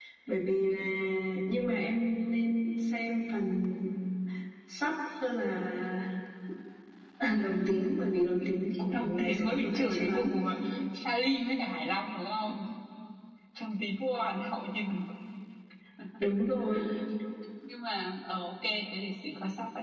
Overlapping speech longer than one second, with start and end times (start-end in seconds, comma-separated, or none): 8.9-10.4